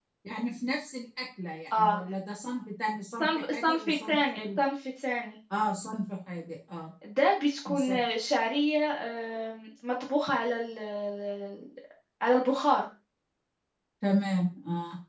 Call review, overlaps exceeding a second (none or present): present